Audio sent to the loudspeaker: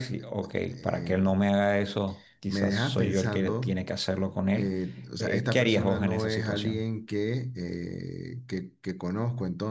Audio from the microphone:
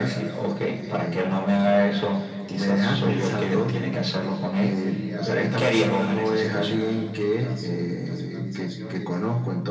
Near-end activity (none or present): present